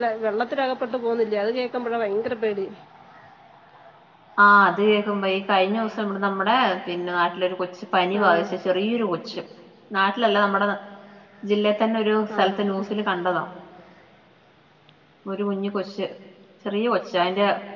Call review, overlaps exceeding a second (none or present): none